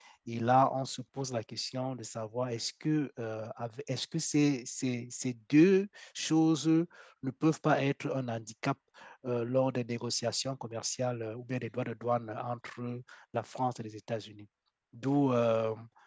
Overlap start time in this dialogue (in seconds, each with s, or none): none